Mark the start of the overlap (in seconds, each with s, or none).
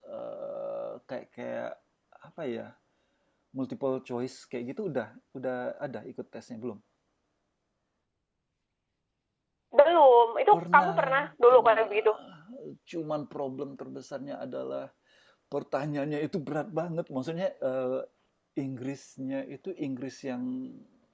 10.5 s